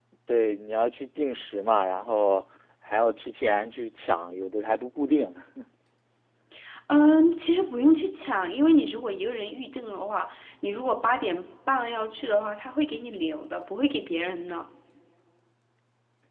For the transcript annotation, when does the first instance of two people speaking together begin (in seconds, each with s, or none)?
none